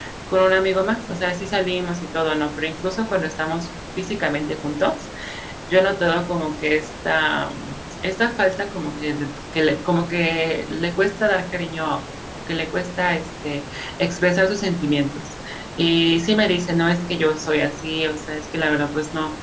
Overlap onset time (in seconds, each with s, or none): none